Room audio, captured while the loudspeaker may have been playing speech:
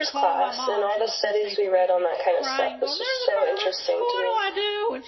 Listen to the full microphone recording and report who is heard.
both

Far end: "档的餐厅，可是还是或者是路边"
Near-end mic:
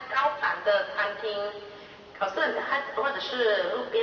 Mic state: echo only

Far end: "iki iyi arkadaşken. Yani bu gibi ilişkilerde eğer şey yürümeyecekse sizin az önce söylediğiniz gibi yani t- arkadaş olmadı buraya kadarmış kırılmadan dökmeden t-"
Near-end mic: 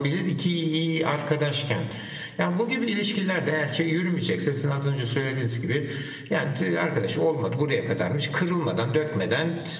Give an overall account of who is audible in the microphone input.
echo only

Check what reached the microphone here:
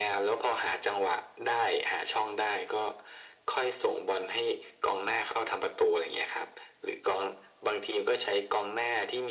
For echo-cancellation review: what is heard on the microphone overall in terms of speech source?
echo only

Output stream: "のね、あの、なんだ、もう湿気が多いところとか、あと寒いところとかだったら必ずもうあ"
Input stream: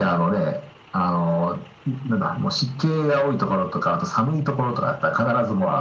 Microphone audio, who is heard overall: echo only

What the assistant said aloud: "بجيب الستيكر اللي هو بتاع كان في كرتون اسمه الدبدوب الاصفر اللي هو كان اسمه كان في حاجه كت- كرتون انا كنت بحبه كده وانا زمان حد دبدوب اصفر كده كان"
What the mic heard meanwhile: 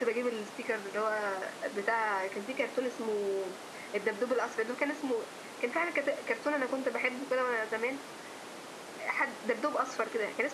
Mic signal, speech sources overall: echo only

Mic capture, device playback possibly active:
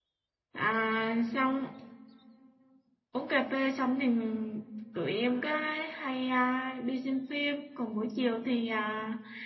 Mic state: user only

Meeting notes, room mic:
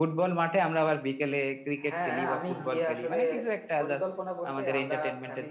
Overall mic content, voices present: both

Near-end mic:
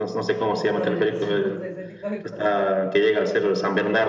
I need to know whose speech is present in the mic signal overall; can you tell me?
both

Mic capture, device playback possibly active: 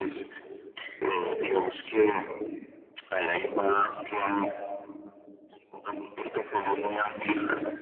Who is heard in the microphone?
echo only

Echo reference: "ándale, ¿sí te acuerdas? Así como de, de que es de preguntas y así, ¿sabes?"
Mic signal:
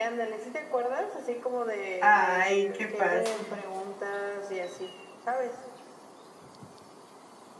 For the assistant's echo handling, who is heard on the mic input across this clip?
both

